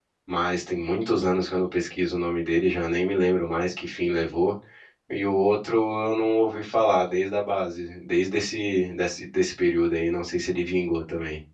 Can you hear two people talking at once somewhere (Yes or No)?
No